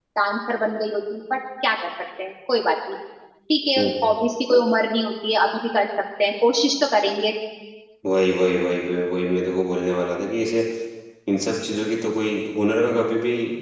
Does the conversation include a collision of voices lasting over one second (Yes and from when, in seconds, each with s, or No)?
No